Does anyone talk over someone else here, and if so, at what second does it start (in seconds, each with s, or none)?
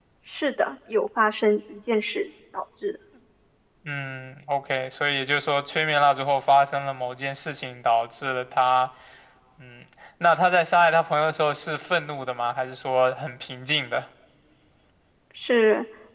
none